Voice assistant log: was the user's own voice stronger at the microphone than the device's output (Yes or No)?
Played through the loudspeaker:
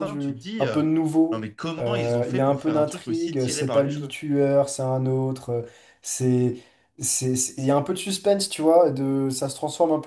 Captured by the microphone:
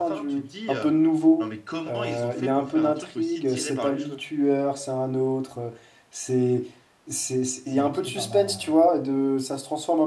No